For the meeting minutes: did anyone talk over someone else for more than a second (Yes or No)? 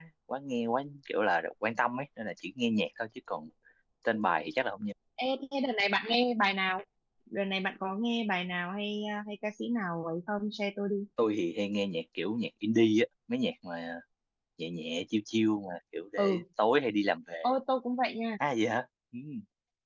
No